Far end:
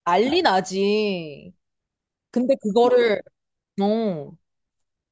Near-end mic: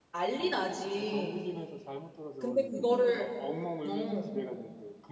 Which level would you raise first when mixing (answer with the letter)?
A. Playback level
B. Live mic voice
B